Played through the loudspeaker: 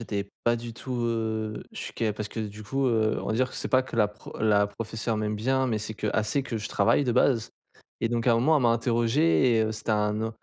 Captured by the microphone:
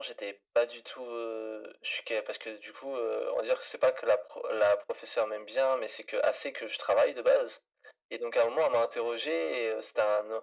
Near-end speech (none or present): none